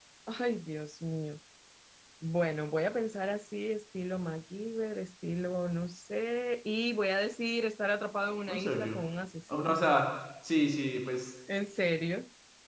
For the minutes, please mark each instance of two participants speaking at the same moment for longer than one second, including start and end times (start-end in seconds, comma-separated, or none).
none